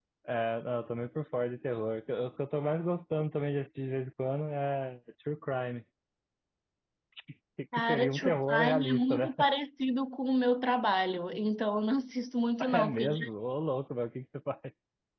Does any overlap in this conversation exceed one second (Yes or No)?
Yes